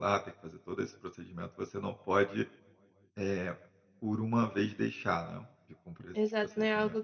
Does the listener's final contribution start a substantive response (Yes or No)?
Yes